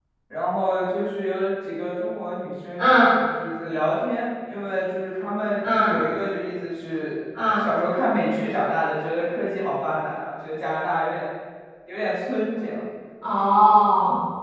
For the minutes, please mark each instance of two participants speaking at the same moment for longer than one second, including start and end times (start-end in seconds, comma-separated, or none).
none